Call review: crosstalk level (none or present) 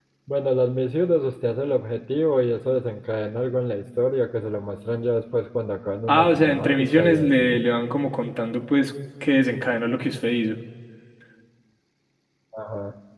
present